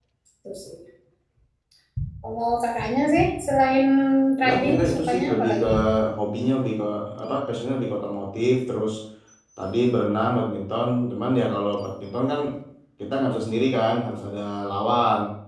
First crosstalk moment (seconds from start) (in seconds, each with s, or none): 4.4 s